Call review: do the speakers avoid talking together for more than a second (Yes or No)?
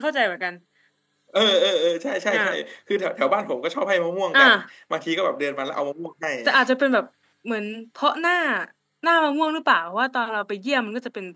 Yes